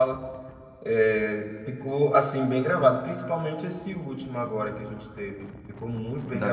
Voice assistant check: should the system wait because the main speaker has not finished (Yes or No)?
No